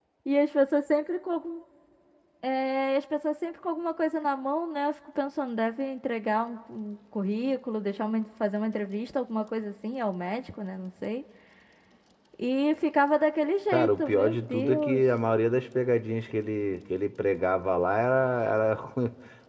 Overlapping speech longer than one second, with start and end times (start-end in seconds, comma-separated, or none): 13.7-15.0